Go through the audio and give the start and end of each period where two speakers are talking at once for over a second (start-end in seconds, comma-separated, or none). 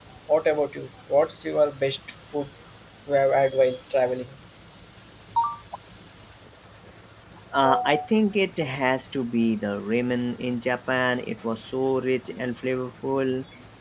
none